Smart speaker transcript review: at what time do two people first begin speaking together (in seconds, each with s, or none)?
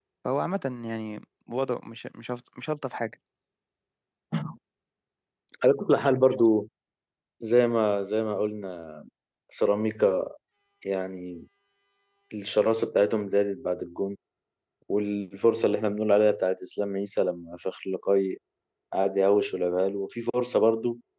none